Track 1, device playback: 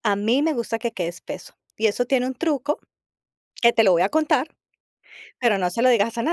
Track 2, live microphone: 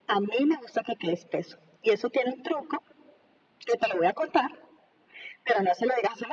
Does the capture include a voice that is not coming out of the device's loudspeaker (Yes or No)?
No